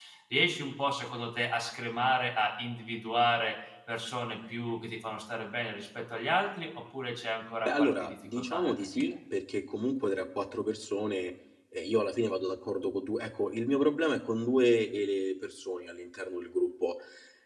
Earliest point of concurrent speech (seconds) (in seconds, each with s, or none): 7.7 s